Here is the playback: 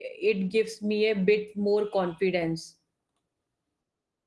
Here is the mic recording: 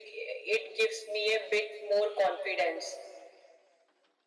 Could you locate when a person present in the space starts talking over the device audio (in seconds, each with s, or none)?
none